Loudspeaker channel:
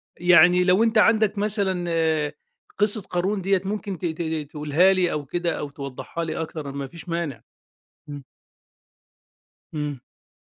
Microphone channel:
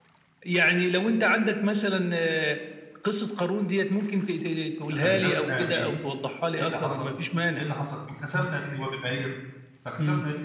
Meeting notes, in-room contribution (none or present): present